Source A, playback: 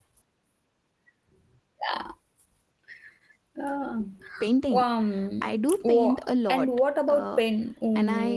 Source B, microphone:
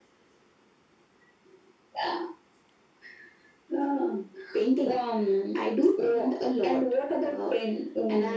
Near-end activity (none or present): none